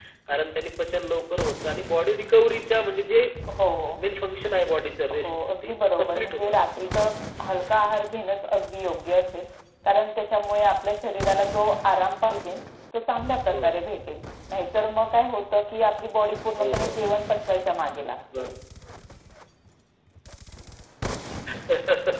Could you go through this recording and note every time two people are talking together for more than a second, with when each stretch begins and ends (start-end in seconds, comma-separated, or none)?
5.1-6.9